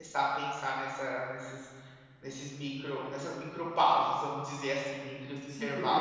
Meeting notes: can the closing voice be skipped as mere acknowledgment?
No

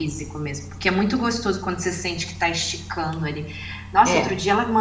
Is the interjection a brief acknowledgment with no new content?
Yes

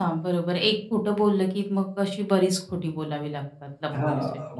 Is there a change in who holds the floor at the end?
Yes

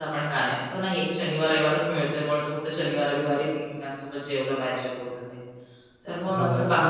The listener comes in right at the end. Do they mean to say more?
Yes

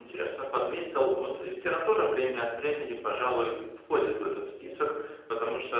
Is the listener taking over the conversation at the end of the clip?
Yes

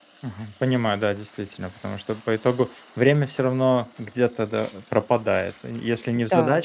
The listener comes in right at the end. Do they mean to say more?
No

